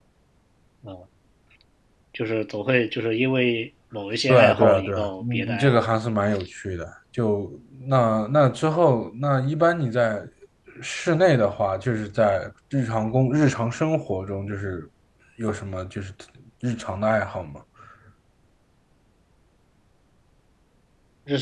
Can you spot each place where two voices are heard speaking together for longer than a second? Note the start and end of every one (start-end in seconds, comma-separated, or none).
4.3-5.9